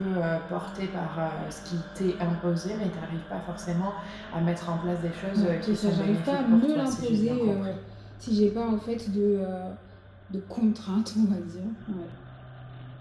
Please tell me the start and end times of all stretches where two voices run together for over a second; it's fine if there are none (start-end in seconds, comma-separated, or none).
5.3-7.8